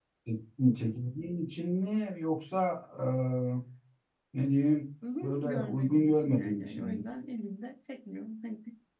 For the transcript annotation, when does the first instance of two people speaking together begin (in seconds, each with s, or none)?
5.2 s